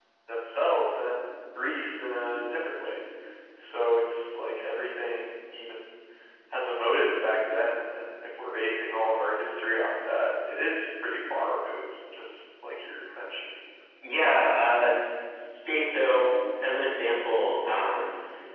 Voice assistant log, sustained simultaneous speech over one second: none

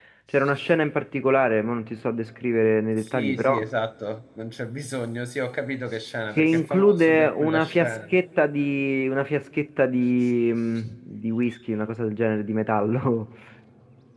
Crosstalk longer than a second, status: present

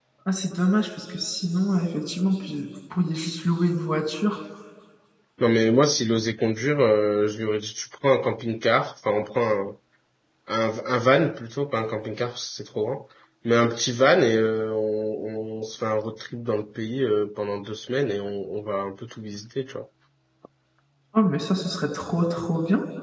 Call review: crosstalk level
none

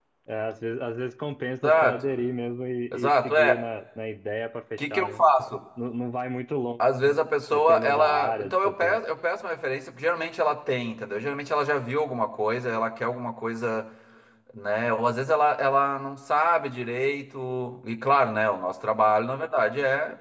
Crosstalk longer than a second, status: present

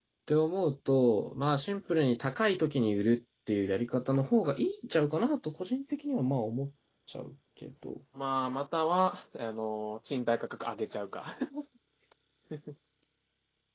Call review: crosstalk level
none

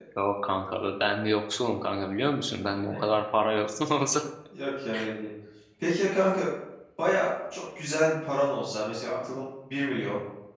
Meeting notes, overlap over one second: none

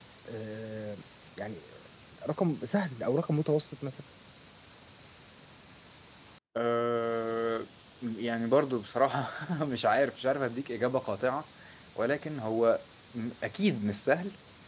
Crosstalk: none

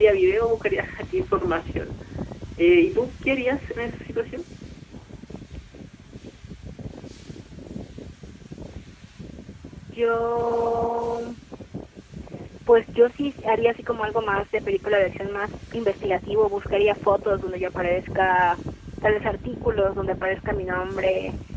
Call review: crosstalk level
none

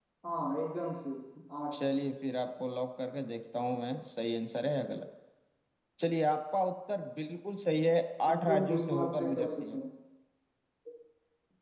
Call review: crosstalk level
present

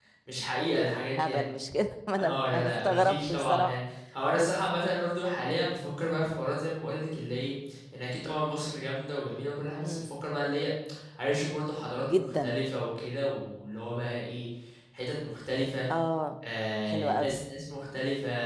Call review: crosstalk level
present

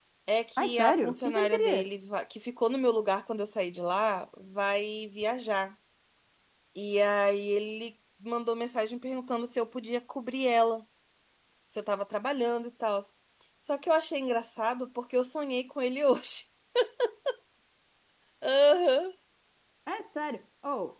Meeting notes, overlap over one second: present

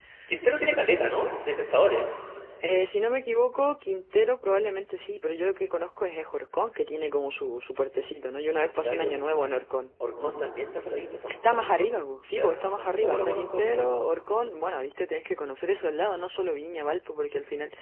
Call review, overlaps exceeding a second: present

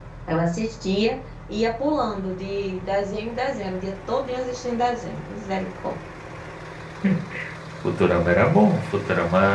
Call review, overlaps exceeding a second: none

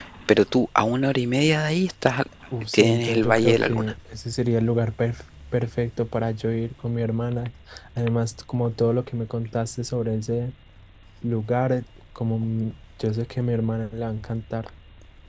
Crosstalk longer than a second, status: present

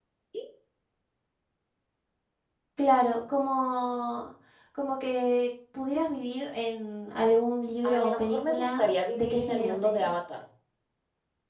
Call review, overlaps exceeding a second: present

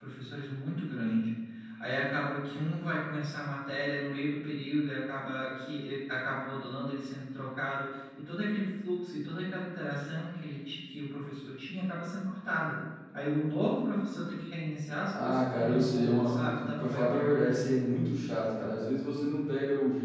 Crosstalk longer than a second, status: present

